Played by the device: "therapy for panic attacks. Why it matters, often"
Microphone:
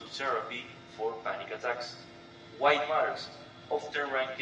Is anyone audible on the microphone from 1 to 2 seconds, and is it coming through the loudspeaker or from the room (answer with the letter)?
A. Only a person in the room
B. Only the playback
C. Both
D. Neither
B